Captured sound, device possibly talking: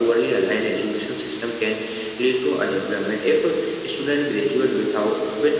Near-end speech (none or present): none